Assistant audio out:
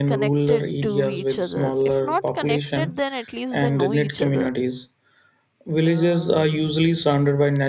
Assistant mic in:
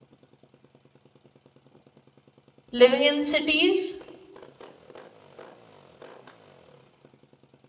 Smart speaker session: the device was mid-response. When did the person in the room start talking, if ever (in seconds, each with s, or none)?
2.7 s